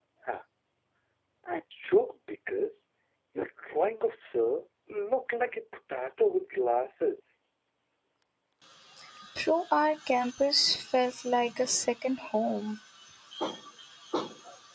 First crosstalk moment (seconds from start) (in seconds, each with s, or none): none